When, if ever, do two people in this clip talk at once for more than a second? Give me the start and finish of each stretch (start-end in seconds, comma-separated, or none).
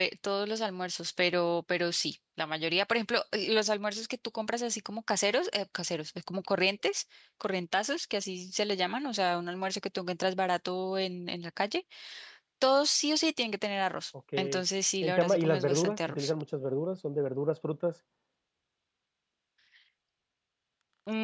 15.0-16.3